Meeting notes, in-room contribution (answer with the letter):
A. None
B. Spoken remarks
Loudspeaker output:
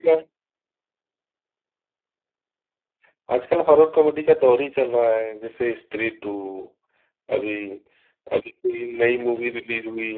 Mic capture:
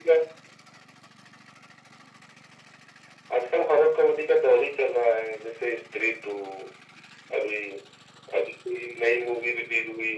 A